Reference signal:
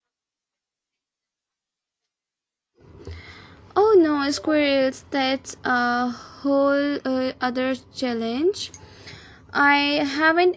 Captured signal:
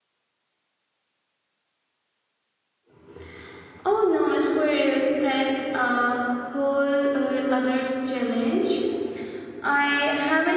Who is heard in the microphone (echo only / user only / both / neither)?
echo only